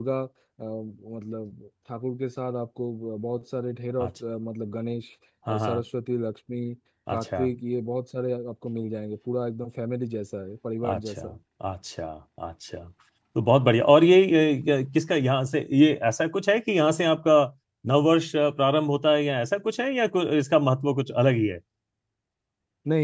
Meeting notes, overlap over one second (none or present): none